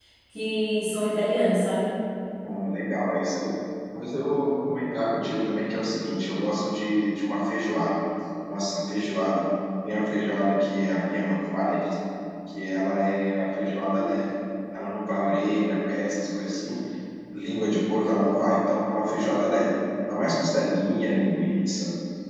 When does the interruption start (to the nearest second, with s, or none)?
none